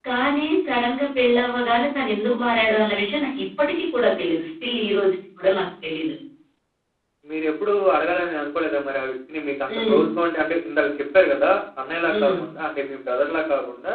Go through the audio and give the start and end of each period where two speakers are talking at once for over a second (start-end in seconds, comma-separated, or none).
none